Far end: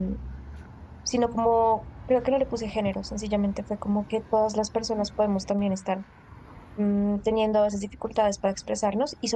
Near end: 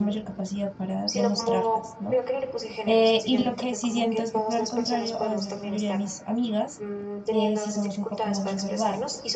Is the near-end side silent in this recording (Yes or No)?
No